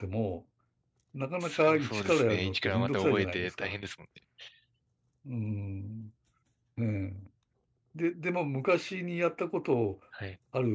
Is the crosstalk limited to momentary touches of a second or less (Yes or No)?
No